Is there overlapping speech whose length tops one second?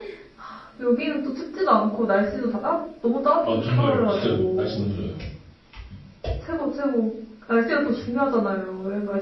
Yes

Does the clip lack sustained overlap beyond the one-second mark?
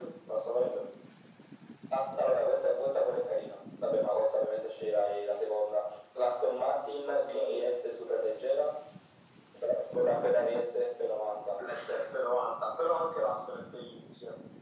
Yes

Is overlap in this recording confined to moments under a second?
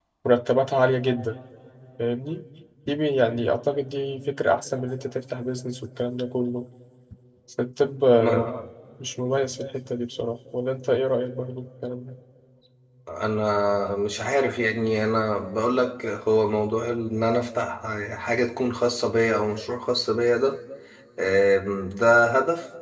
Yes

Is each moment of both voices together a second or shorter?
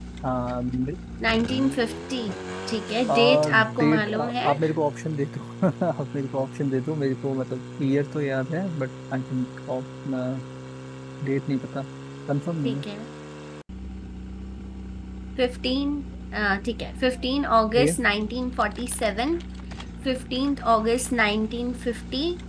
No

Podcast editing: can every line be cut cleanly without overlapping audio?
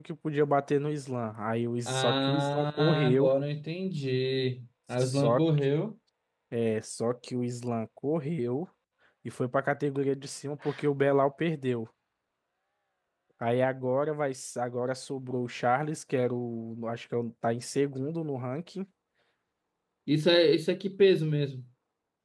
No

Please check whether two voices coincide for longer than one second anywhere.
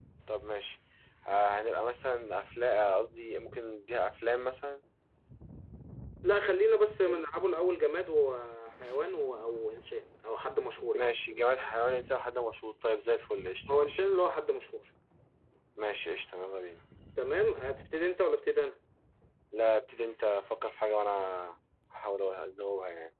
No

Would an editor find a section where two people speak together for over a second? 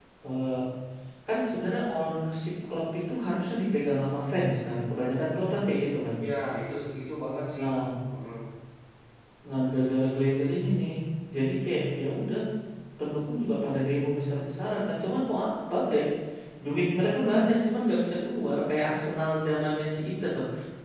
No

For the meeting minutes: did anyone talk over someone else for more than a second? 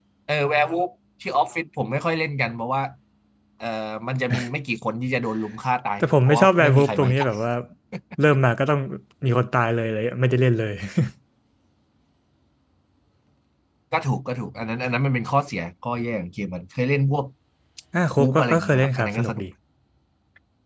Yes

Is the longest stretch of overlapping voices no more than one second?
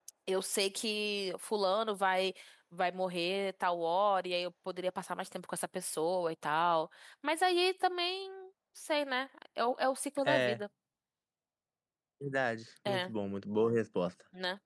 Yes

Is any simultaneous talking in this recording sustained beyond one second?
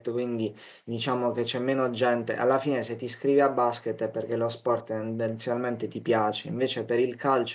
No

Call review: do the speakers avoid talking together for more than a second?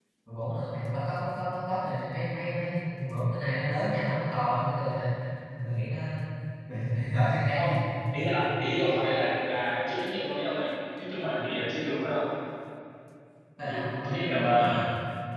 No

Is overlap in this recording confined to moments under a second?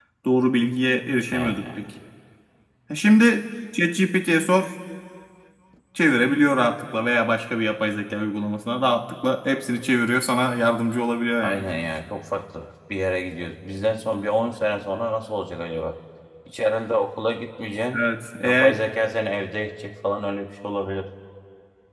Yes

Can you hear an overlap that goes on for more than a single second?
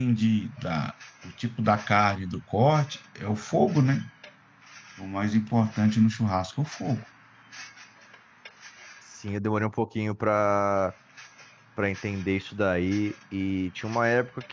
No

